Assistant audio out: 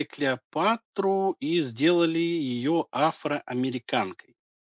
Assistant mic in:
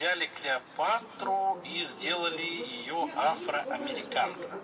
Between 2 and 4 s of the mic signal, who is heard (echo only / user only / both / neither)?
both